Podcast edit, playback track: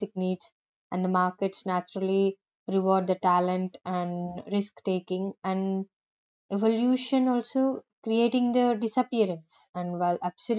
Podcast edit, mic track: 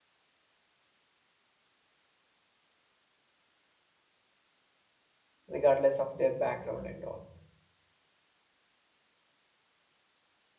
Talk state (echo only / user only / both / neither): user only